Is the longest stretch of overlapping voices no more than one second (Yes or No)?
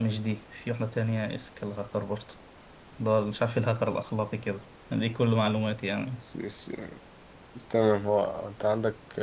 Yes